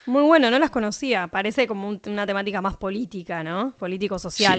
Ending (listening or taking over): taking over